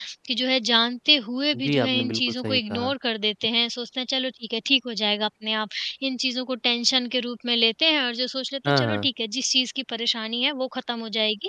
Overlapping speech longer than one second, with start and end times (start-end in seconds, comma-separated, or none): 1.5-2.9